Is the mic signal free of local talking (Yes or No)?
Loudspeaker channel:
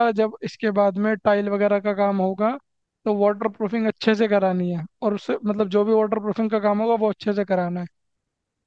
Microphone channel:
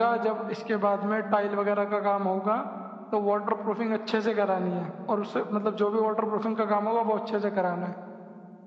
Yes